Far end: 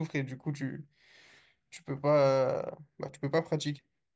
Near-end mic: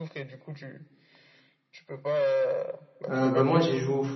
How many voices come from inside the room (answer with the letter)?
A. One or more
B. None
A